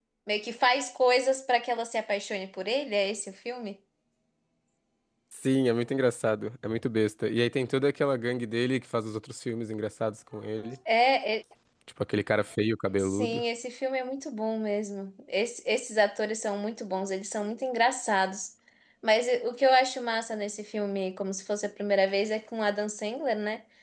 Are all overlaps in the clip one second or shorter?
Yes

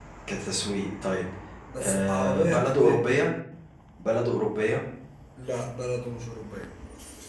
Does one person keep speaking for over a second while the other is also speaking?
Yes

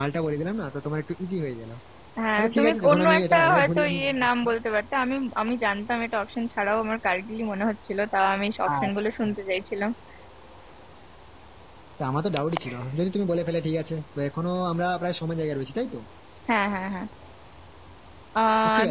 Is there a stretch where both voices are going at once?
Yes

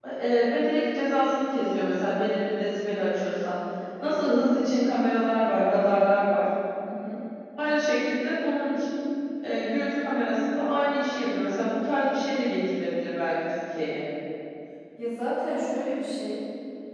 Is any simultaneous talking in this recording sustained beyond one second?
No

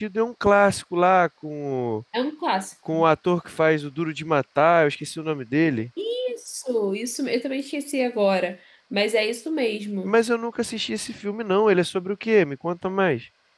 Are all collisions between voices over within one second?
Yes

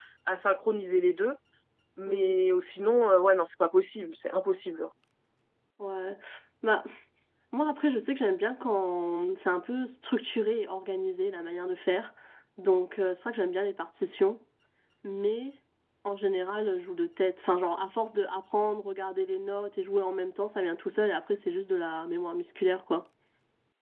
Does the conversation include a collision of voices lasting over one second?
No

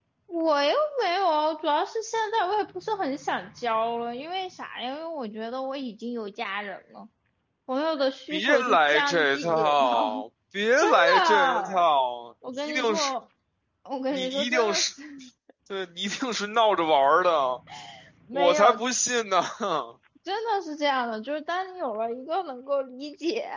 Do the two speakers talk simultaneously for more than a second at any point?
Yes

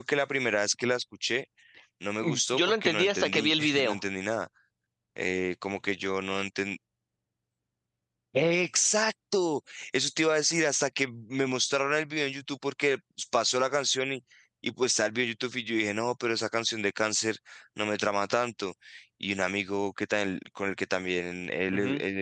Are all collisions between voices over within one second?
No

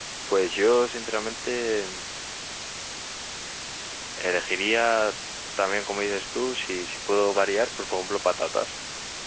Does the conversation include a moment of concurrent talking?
No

